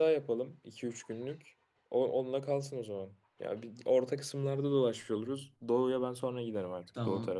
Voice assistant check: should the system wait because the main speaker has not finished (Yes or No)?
No